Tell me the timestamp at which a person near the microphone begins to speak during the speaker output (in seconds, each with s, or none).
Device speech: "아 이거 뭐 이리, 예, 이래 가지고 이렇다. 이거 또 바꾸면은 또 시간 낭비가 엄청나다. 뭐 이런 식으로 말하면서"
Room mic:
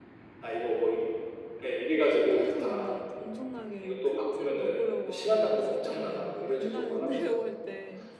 2.3 s